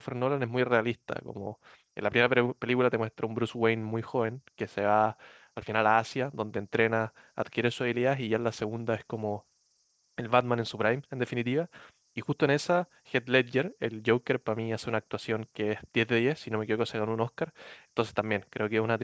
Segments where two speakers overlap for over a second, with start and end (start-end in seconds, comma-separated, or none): none